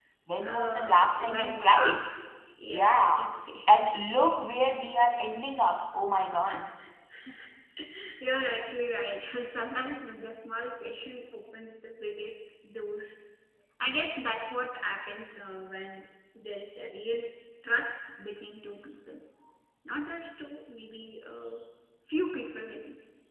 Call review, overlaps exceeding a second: present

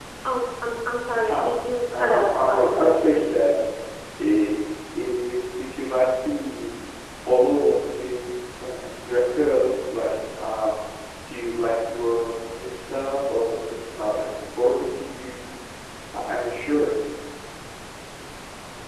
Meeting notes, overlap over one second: present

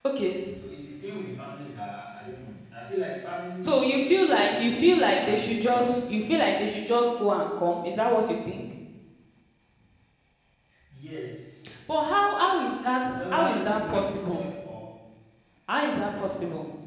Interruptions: present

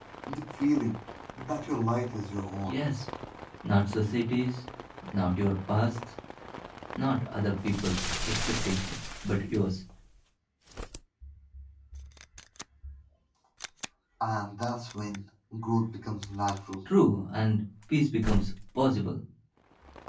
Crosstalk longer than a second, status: none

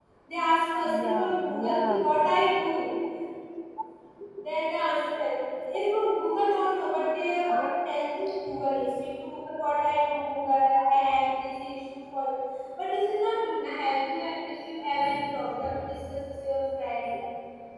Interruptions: present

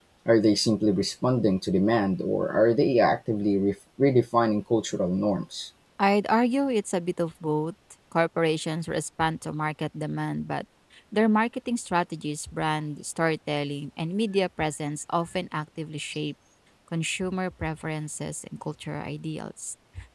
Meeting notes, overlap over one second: none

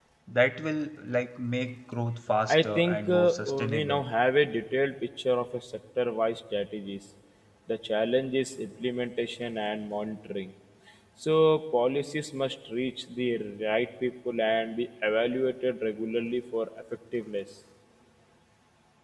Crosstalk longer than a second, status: present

